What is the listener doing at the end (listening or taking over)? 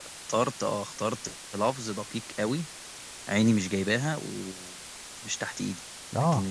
listening